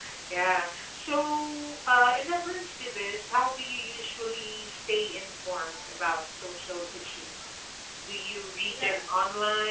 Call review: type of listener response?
listening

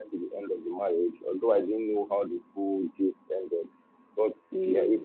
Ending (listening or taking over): listening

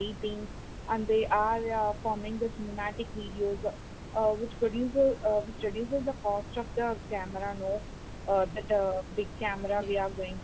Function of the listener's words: listening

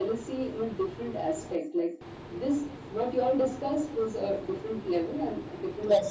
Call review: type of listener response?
listening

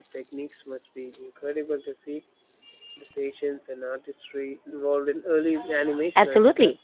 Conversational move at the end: taking over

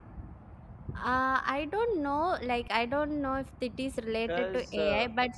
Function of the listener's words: listening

